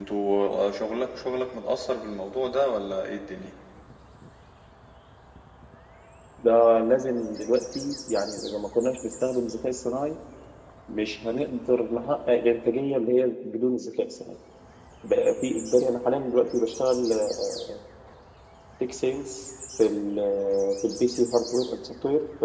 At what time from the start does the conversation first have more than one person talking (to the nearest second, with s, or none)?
none